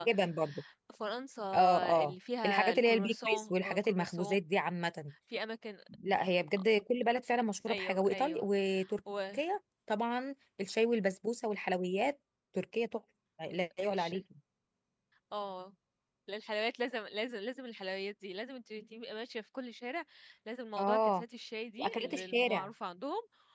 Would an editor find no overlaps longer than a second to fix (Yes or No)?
No